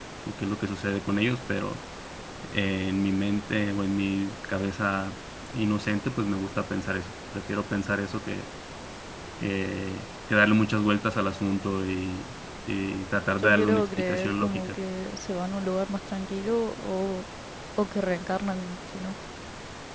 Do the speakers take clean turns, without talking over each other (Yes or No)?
No